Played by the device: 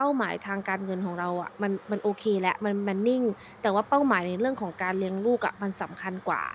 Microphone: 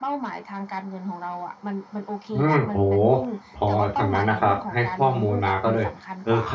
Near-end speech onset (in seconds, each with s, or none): 2.3 s